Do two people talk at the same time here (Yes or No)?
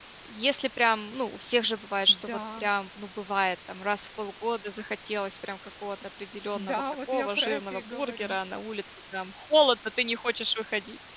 Yes